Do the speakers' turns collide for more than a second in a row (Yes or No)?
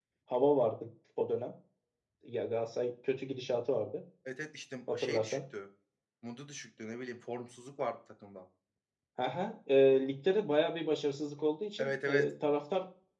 No